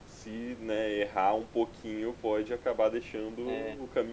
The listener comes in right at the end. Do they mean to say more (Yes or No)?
Yes